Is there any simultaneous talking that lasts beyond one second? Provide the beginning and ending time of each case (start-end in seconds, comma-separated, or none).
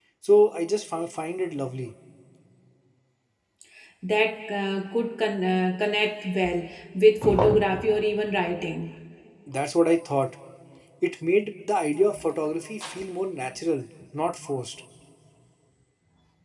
none